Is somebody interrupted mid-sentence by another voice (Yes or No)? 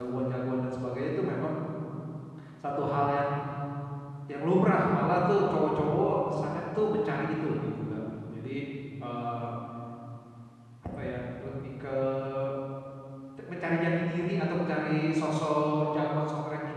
No